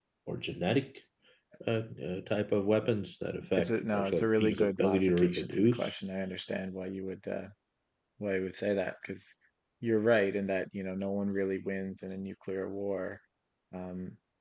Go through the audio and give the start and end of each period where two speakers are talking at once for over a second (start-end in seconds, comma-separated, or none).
3.6-5.9